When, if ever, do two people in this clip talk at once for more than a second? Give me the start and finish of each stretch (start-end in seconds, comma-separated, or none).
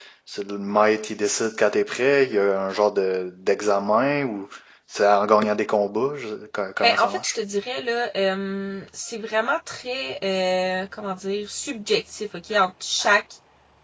none